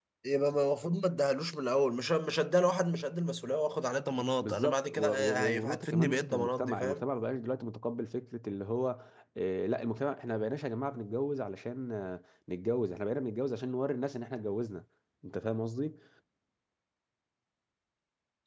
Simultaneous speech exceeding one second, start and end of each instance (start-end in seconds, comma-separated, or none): 4.4-7.0